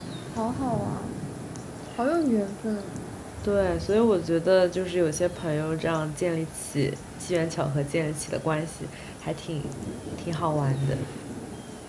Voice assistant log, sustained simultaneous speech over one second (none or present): none